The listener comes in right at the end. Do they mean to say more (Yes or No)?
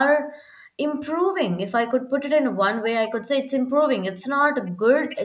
No